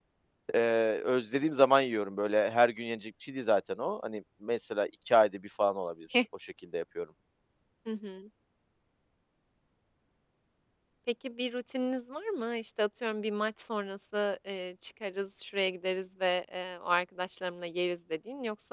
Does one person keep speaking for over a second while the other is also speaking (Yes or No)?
No